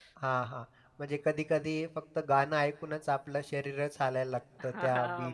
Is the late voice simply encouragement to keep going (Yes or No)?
No